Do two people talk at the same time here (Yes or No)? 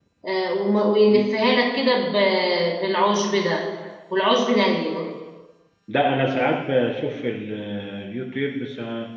No